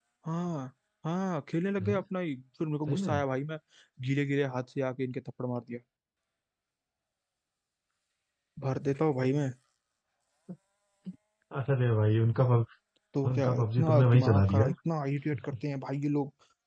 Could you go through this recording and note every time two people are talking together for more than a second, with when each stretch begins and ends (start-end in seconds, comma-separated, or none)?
13.3-14.7